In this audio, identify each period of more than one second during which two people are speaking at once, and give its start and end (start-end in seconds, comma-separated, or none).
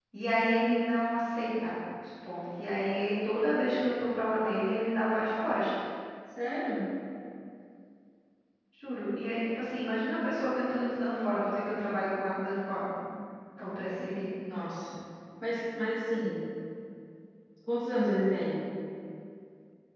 none